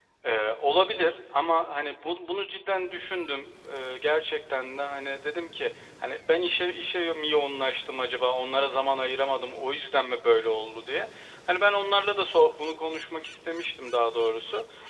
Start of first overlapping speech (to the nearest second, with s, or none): none